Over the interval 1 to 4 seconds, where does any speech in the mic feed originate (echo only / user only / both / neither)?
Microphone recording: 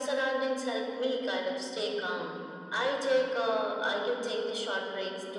echo only